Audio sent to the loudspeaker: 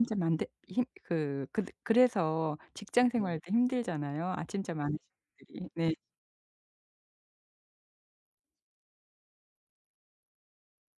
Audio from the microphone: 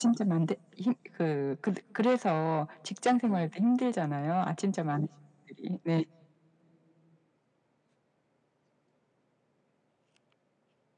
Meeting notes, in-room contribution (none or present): none